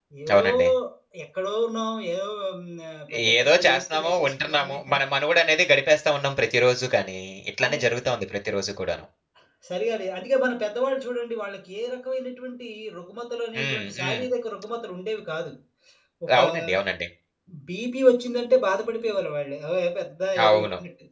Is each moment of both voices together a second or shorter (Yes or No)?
No